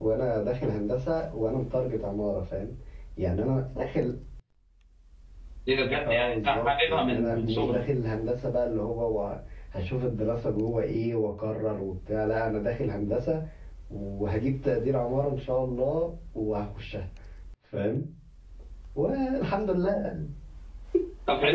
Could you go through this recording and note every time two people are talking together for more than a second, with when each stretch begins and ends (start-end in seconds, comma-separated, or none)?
6.1-7.8